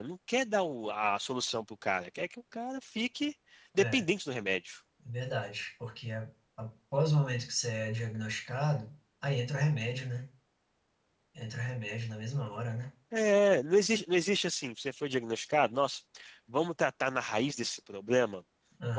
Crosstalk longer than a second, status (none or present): none